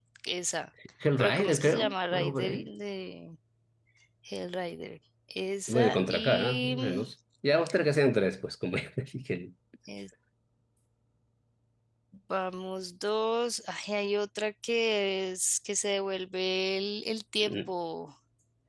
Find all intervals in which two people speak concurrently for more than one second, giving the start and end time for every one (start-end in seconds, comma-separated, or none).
1.2-2.7, 5.7-7.1